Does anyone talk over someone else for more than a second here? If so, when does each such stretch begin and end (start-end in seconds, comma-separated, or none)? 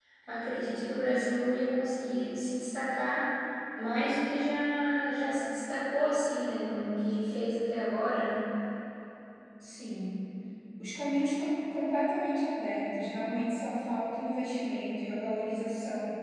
none